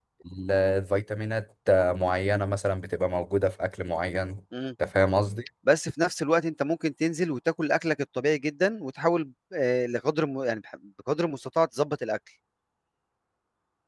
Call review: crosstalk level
none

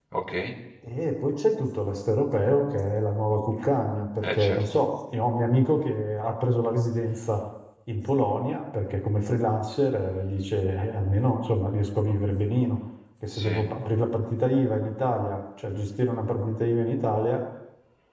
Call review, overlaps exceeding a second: none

